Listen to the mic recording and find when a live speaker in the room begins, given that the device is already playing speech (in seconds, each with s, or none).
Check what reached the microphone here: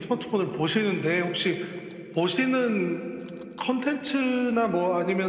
none